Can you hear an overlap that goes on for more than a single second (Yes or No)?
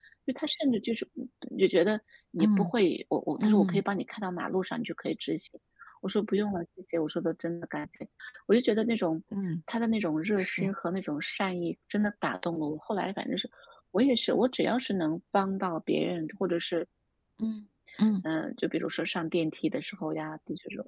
No